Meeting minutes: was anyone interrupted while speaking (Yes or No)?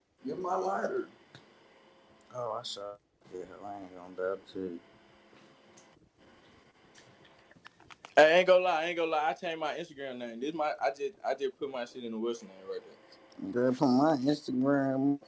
No